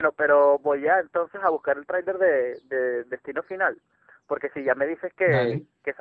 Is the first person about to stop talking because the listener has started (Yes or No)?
No